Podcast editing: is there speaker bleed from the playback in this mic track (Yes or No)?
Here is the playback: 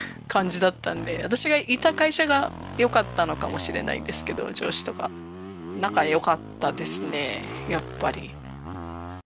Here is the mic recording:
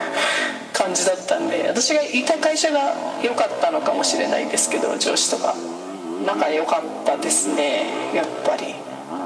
Yes